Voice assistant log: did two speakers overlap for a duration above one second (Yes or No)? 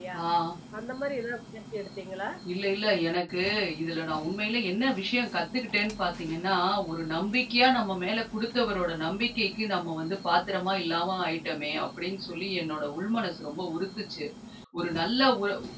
No